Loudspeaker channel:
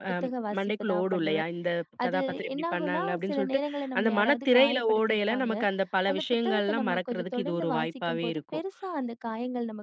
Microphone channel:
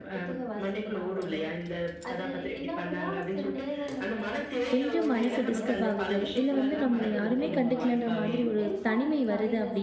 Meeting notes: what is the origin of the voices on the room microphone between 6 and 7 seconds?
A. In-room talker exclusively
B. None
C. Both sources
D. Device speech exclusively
C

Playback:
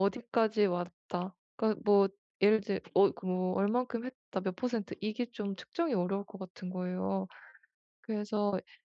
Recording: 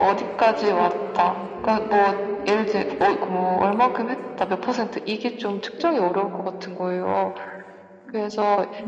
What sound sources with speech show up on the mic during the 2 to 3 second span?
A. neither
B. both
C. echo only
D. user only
B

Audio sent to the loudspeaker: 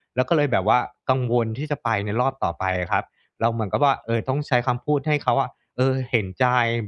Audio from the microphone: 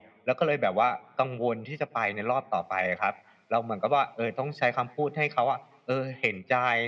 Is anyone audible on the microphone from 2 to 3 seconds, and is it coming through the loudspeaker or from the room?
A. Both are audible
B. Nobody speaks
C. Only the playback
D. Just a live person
C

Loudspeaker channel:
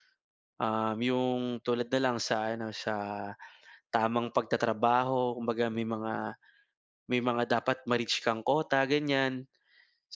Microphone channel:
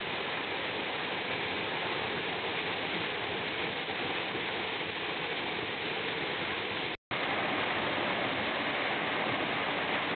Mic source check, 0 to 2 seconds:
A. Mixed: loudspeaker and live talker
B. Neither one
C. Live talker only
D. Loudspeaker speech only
B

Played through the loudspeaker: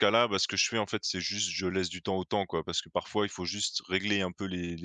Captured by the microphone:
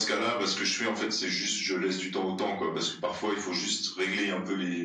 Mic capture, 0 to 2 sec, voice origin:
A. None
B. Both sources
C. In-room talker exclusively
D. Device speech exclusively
D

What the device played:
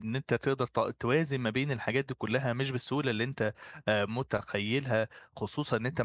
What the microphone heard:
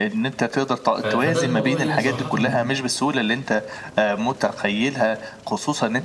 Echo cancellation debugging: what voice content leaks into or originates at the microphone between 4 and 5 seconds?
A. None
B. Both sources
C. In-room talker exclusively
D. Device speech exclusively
D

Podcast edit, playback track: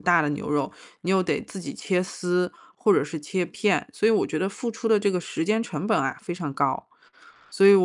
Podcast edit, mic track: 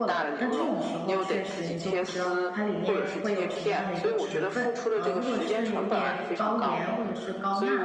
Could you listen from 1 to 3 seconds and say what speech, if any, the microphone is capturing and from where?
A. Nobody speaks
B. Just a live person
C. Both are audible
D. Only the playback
C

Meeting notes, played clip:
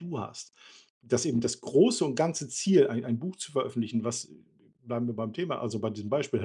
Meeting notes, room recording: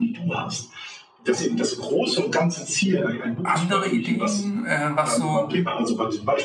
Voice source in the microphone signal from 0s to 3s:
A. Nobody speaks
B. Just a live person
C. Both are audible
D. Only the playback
D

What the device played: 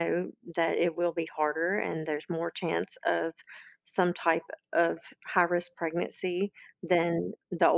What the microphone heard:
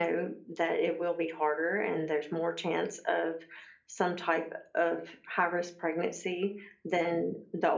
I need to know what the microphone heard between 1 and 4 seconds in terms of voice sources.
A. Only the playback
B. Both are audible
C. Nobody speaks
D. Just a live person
A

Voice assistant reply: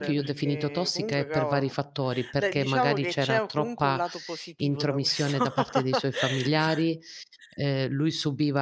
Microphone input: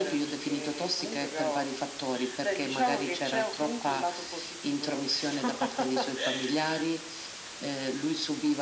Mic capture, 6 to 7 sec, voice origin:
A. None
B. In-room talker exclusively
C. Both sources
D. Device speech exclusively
D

